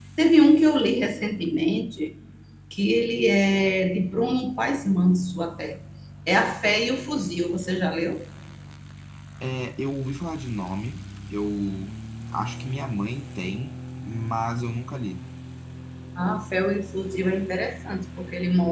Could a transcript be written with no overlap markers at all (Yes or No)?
Yes